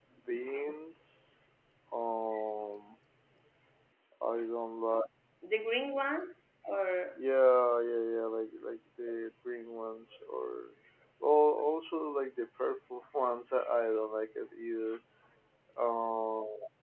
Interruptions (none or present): none